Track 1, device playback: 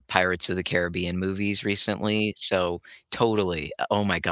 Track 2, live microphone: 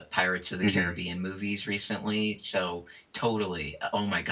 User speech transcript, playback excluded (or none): Mhm.